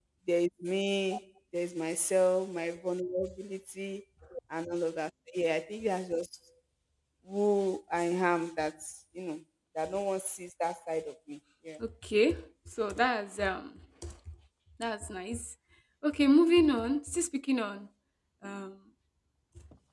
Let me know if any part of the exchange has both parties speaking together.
No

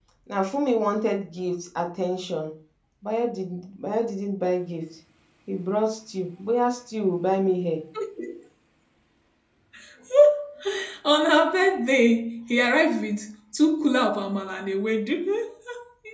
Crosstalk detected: No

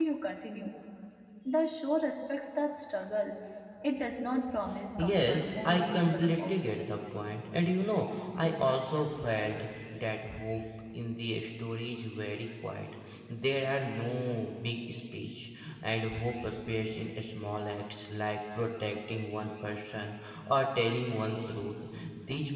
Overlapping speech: Yes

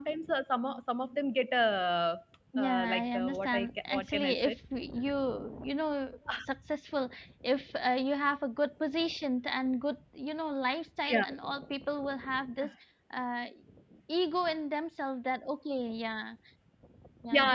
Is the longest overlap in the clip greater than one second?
Yes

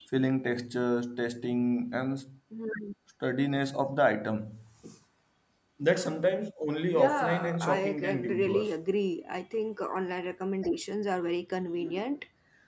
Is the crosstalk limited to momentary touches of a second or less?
No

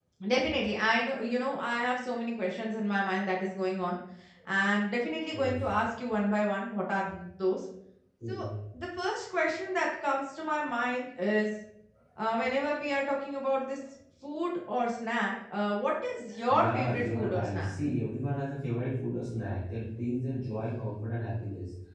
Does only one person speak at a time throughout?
No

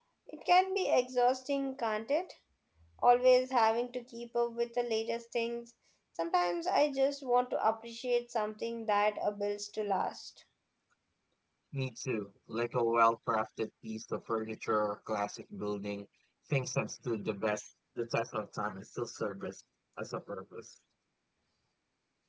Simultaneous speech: No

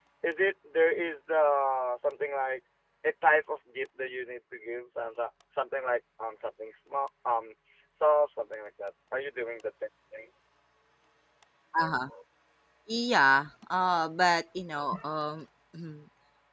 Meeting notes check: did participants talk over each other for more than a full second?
No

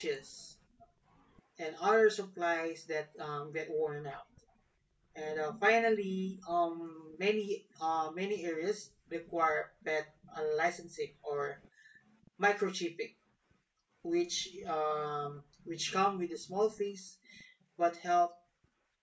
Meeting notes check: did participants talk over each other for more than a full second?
No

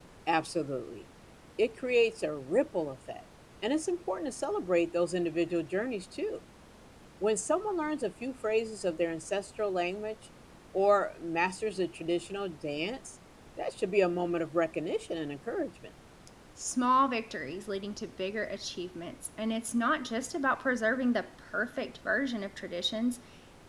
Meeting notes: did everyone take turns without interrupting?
Yes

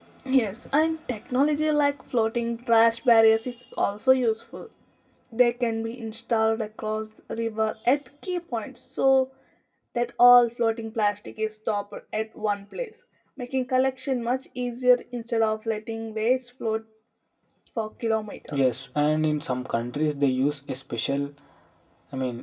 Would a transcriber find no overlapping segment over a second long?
Yes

